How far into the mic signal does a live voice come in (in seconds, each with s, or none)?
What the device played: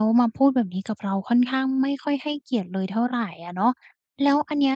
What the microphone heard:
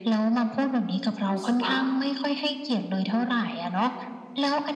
1.3 s